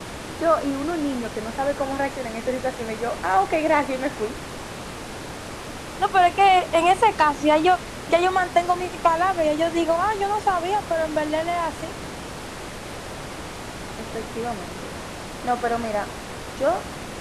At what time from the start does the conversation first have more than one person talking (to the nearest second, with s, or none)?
none